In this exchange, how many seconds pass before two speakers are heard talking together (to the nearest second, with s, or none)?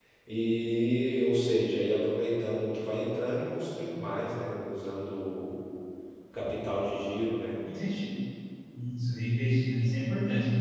none